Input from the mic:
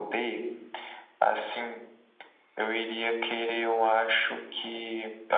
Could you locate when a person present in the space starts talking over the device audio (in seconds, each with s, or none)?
none